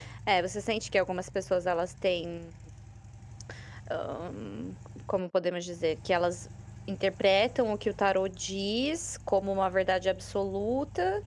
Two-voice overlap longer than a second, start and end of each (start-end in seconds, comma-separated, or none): none